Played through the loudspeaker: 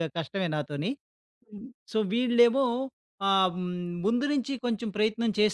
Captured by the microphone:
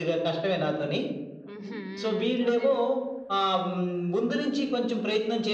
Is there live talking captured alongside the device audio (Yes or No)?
Yes